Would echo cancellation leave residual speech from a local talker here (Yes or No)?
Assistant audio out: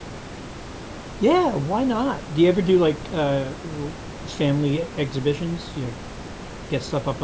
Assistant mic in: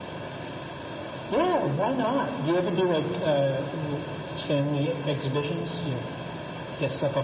No